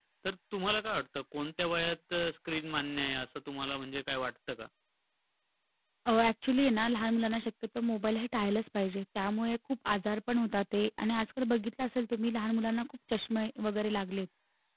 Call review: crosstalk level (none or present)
none